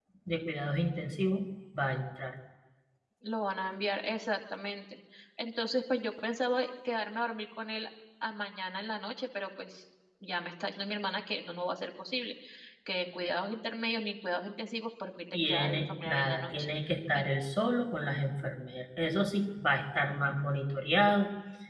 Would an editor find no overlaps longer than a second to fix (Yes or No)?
No